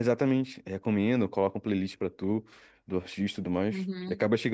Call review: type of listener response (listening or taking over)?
taking over